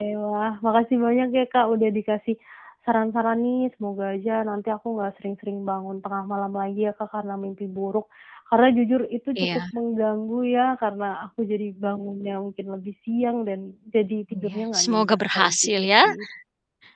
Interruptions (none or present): present